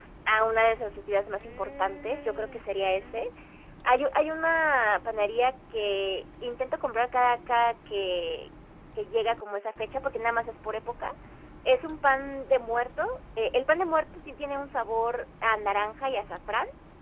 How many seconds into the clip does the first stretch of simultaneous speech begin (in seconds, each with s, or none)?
1.4 s